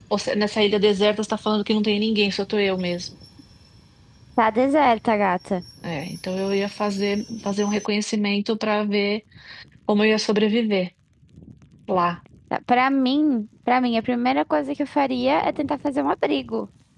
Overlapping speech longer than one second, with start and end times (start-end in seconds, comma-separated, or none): none